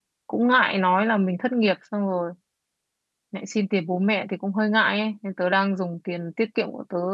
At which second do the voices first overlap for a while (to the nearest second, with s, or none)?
none